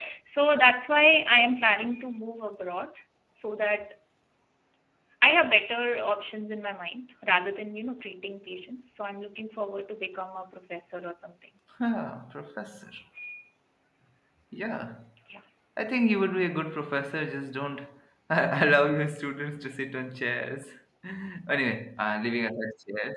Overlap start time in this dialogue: none

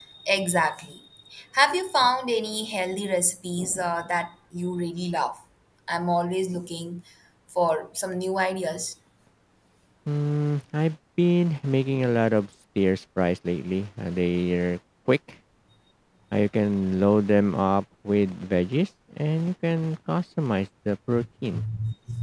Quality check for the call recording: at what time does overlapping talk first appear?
none

